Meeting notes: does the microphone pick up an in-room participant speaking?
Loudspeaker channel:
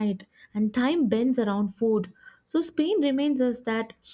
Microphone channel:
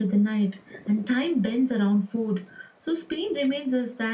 No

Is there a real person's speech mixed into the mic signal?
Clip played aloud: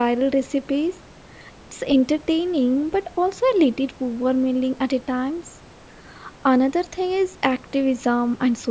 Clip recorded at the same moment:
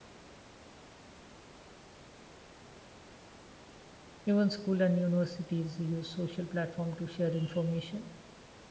Yes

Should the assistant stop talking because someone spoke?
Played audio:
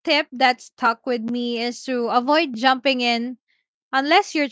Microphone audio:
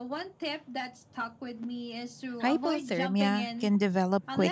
Yes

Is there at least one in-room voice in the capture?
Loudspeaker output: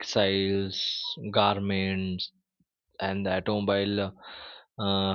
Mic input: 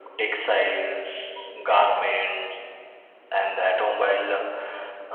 No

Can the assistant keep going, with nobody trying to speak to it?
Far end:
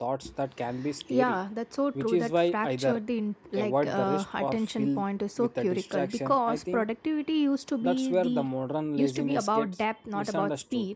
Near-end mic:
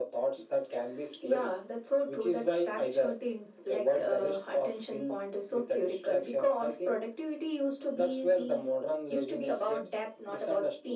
Yes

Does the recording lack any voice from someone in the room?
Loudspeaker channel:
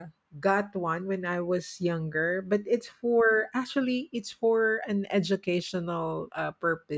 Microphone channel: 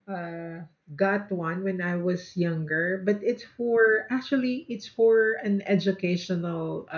Yes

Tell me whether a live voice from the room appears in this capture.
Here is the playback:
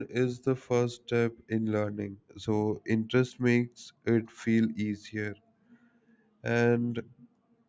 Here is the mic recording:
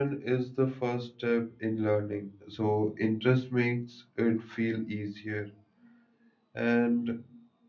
No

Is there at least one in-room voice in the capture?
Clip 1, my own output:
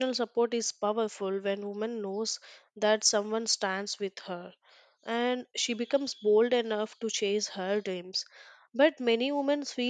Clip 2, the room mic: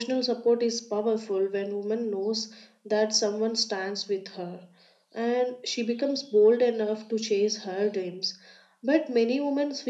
No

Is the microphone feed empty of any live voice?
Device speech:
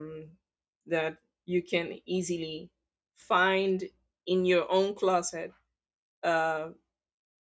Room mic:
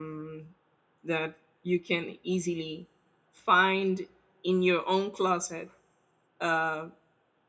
Yes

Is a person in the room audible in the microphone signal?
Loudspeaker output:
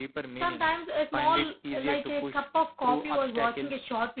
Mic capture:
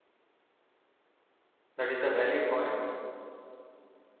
Yes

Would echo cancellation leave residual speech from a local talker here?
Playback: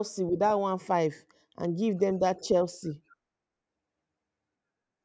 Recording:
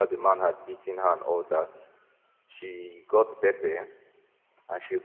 Yes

